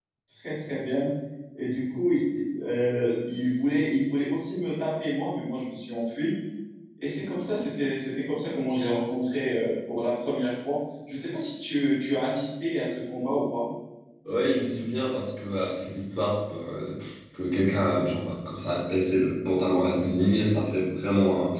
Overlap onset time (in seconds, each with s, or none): none